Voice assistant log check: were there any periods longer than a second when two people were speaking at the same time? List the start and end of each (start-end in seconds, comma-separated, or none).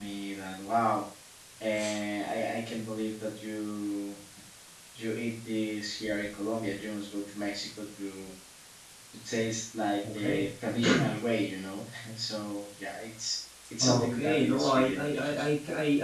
13.8-15.4